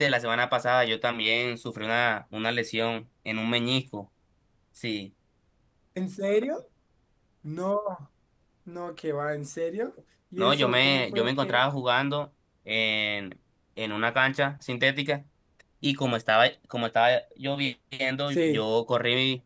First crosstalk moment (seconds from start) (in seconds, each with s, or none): 10.4 s